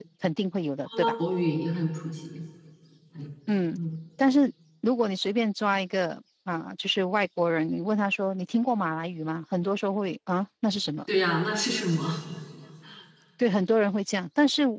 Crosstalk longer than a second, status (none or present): none